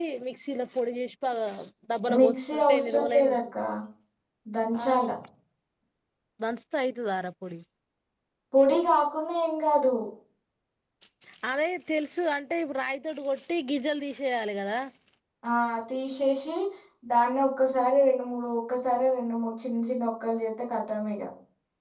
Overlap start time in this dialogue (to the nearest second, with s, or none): 2 s